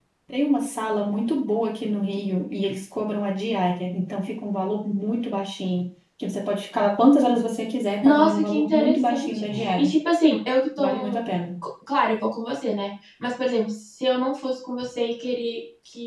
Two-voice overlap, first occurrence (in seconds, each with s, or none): 8.0 s